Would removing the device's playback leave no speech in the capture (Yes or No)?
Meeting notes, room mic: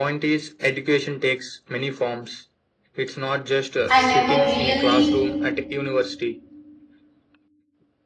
No